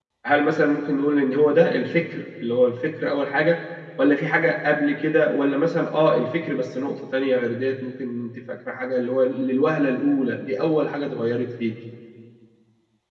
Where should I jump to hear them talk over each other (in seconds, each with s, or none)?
none